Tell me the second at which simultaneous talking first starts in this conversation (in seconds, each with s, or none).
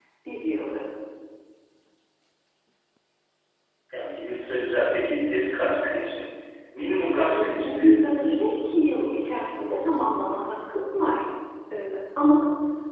7.1 s